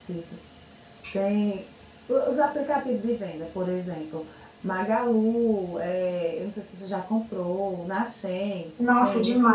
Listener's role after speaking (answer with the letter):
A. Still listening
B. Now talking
B